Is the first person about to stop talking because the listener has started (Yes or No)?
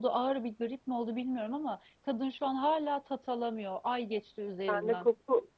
Yes